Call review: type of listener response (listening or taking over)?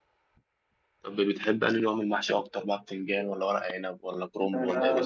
taking over